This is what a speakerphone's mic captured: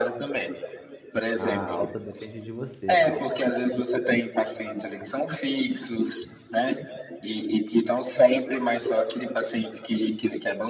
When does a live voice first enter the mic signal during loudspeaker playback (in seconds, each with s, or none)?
1.3 s